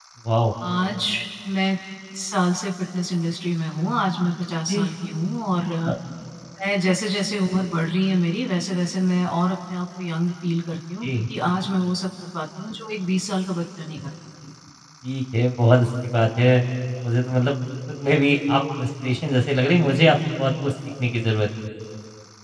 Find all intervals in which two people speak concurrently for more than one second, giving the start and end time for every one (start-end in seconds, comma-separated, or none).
none